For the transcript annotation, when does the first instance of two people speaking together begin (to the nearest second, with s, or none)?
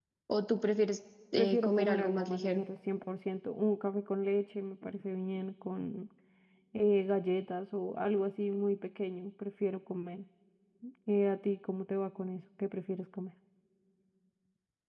1 s